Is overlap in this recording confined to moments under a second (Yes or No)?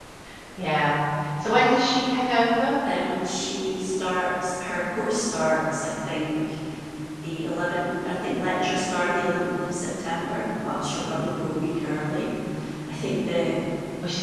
Yes